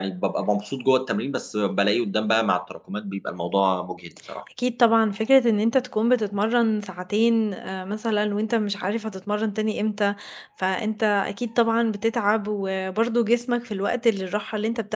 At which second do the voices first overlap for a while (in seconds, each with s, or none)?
none